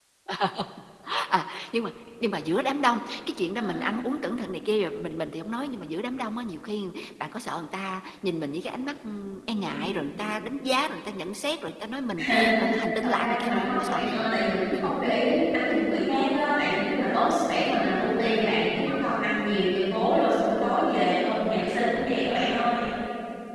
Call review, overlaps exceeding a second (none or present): present